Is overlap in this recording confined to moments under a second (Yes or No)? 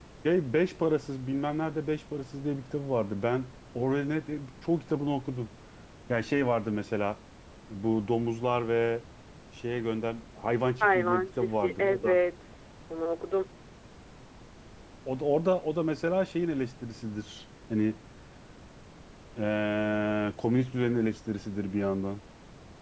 No